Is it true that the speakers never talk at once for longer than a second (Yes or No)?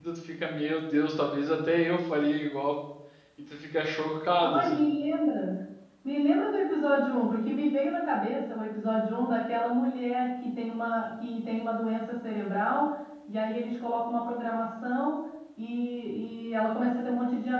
Yes